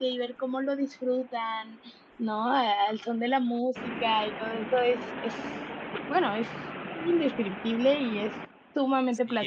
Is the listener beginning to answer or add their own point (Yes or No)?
Yes